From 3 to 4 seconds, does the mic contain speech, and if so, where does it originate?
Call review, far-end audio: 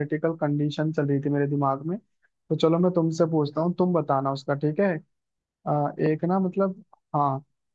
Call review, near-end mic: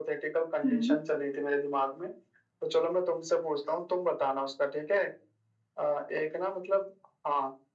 echo only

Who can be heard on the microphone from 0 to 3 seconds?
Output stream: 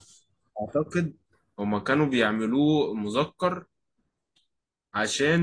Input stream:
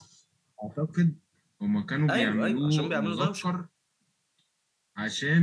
both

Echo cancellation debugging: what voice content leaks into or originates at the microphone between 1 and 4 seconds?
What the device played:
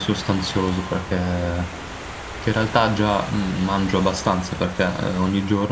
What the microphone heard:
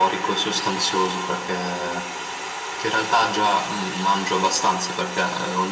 echo only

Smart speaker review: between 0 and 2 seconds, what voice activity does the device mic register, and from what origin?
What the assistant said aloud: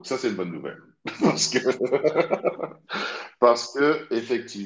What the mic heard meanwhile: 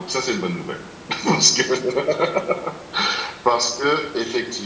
echo only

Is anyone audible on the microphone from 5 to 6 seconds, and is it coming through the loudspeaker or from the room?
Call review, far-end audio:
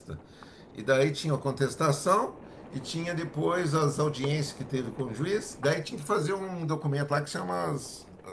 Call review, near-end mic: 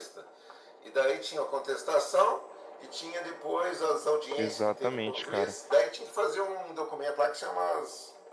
both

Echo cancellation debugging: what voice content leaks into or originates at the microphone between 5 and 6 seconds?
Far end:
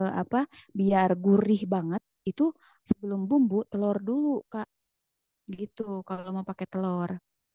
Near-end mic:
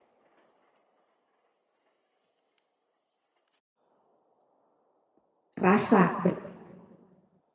user only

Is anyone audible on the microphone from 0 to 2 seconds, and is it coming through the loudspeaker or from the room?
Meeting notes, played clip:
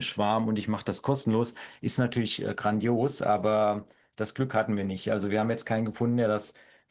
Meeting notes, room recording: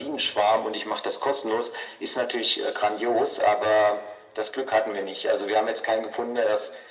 echo only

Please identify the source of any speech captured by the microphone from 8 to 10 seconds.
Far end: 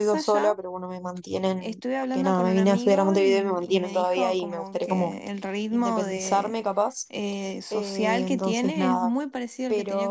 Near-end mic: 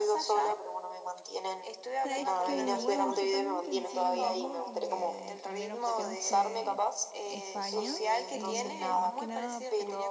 both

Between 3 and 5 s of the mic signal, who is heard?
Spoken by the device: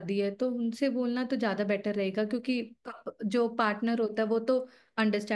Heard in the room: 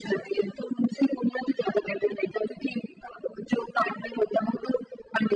echo only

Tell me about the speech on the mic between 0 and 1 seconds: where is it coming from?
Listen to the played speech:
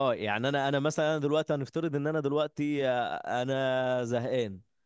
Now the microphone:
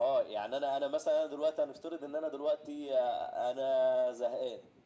echo only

